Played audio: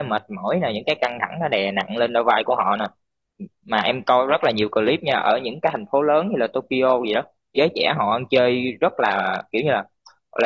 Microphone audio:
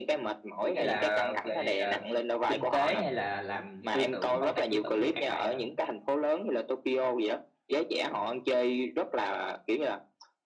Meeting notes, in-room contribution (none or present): present